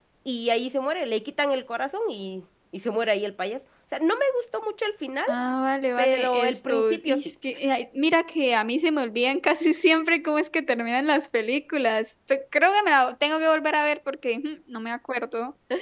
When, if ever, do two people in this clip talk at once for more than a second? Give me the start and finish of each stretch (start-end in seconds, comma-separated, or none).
6.0-7.3